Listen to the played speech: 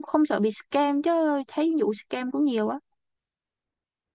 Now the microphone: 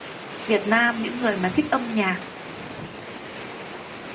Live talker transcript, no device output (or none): Việt Nam những người mà thích âm nhạc